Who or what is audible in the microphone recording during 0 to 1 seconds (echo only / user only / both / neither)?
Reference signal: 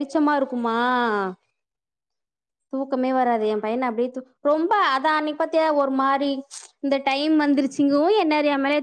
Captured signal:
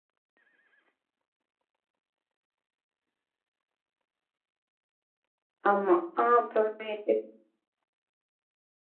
neither